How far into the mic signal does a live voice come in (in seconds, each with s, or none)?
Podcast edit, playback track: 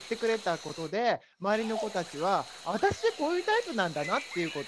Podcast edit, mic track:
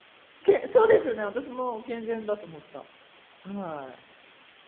0.4 s